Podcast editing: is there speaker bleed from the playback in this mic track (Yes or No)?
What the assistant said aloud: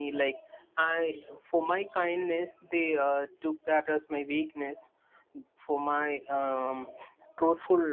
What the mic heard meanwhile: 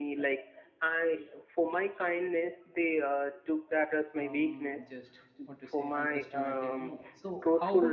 Yes